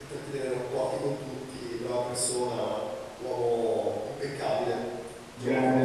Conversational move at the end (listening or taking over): taking over